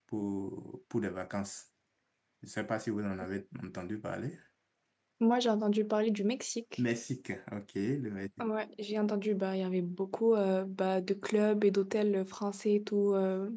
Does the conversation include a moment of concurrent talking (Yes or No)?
No